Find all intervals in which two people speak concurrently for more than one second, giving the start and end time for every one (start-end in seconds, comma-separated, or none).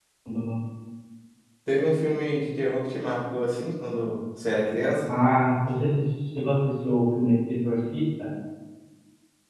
none